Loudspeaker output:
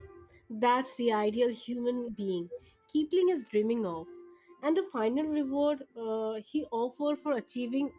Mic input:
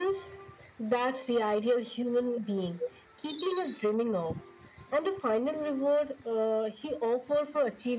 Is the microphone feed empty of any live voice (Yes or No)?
Yes